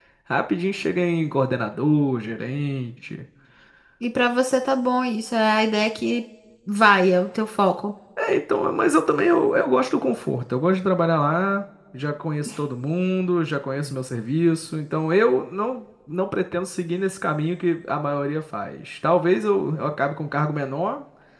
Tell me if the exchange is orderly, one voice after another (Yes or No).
Yes